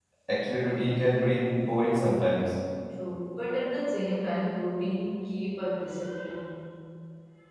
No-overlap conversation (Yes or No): Yes